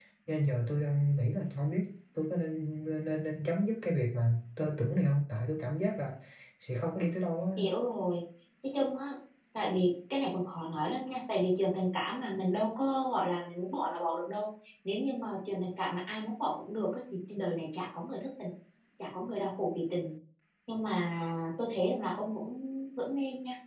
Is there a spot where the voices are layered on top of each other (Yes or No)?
No